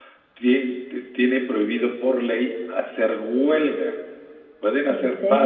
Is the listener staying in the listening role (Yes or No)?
Yes